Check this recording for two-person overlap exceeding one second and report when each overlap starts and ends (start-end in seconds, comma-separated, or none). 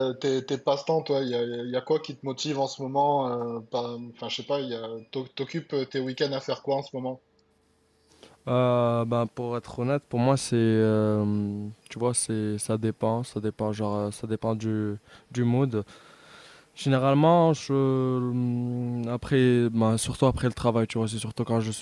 none